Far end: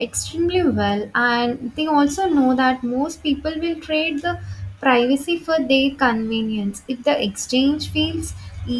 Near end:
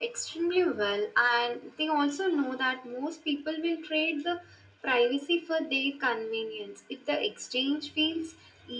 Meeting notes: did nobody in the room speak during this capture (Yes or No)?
Yes